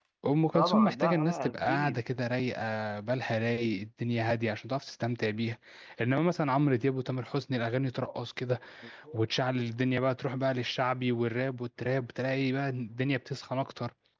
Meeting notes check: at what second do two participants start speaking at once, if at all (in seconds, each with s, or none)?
0.5 s